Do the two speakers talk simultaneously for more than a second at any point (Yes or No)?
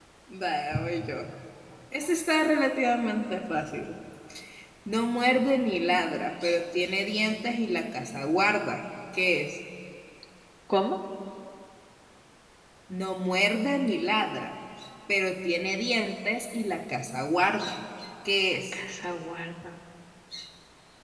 No